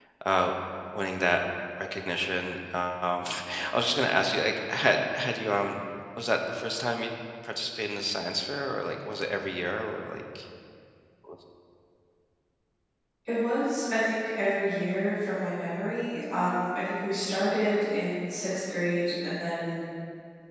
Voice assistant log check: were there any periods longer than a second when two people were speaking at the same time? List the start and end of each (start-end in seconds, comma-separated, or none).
none